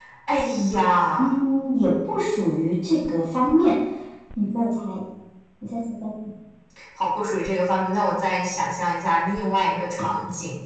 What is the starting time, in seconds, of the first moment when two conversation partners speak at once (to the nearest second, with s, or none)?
none